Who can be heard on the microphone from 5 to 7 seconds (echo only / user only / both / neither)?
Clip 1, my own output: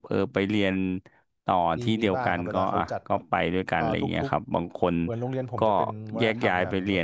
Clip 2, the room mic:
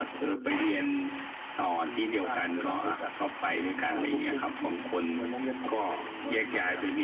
echo only